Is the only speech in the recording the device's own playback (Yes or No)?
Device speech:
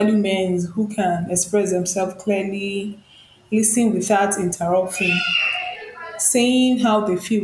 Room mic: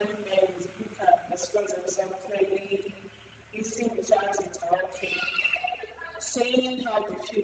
Yes